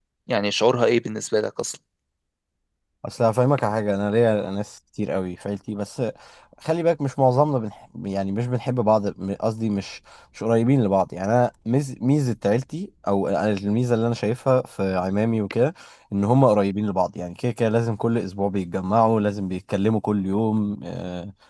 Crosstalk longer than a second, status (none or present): none